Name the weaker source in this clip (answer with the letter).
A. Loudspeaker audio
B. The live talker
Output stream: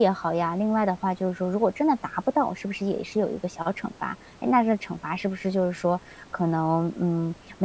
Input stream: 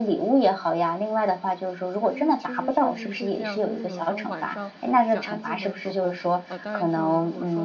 B